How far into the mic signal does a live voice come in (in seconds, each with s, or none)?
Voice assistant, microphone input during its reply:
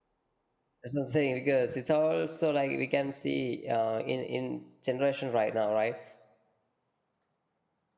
0.8 s